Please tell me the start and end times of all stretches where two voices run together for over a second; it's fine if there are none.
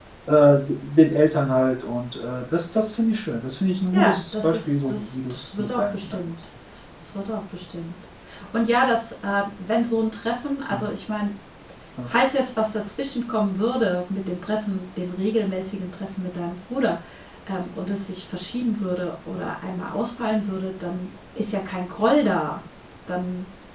3.9-6.3

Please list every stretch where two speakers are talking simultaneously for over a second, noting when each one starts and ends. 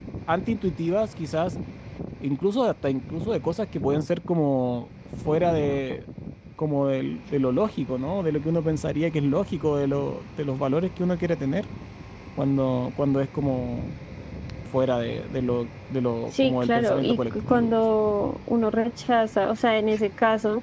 16.4-17.8

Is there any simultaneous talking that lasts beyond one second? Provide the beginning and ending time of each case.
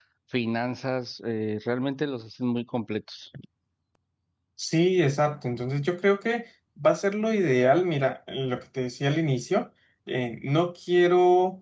none

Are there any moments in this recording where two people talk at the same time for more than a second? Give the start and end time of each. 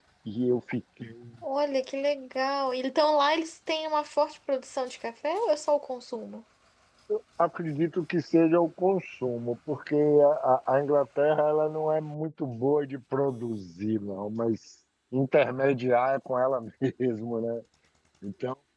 none

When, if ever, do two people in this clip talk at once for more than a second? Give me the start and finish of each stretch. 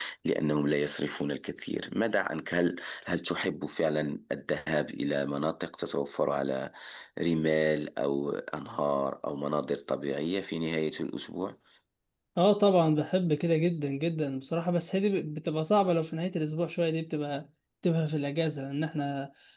none

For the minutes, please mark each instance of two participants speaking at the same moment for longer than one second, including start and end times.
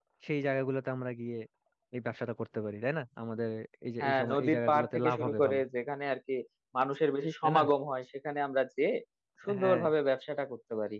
4.0-5.6

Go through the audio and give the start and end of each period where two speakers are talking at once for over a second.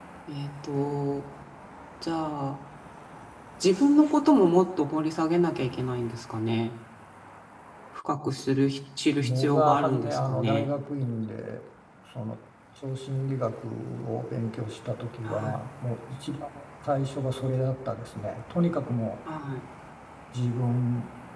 9.2-10.7

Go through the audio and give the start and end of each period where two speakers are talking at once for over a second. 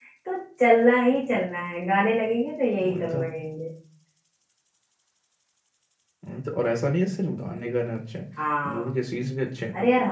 none

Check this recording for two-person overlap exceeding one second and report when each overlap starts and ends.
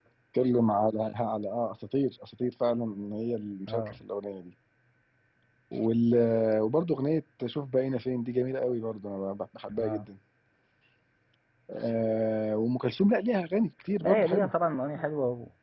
none

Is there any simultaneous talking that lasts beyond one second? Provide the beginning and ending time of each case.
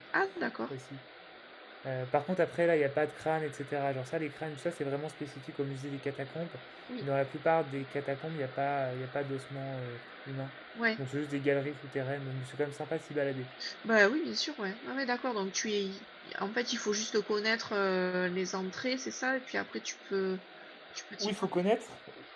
none

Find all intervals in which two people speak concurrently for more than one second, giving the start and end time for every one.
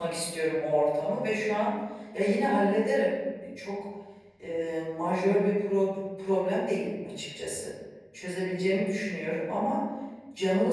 none

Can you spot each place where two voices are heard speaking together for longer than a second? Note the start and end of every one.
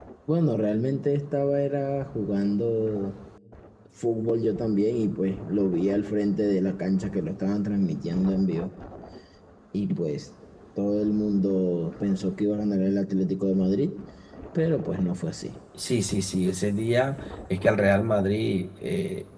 none

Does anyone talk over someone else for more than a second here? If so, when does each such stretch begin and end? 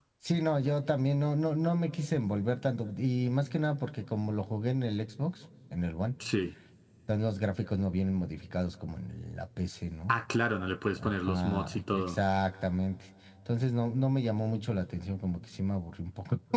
11.0-12.2

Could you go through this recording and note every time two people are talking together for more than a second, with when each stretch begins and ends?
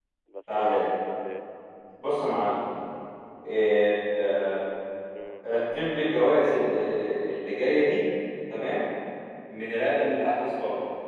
none

